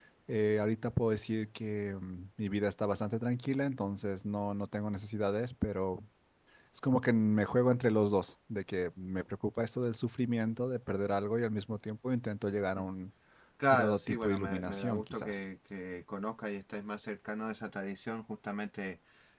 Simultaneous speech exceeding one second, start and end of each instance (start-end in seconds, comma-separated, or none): 13.7-15.4